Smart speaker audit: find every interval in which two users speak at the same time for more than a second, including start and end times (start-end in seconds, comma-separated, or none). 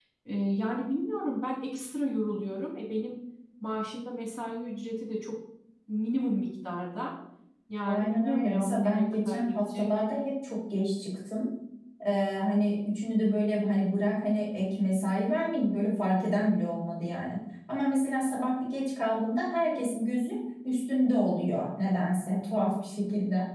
7.9-9.9